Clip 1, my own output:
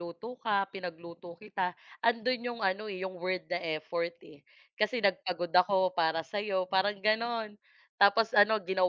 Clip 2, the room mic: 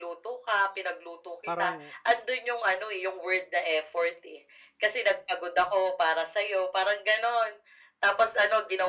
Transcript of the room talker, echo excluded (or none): Parang